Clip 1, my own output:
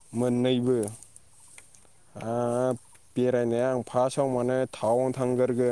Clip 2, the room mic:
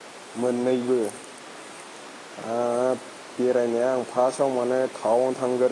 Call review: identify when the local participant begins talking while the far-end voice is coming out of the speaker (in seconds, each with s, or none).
none